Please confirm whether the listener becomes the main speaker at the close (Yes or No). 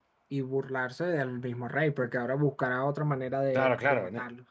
Yes